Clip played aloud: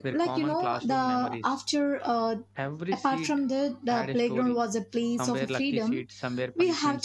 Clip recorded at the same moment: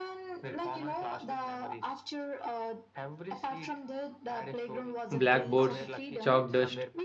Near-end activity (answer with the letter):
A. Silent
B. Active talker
B